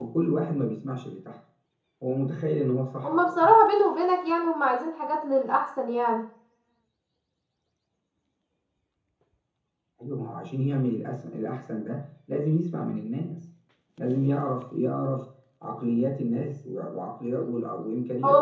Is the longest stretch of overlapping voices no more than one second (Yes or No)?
Yes